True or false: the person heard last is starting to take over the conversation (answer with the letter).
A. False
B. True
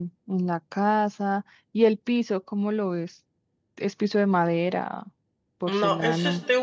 B